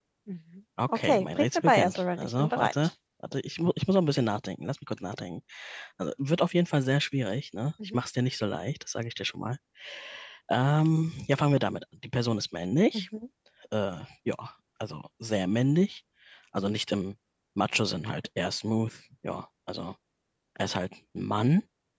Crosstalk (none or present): present